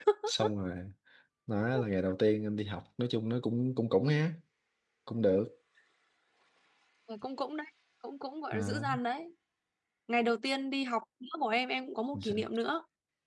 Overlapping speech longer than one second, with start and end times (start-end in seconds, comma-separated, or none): none